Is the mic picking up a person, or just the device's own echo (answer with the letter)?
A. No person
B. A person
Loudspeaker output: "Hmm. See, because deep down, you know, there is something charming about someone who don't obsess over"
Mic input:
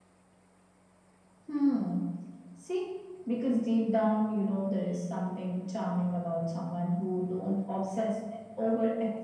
A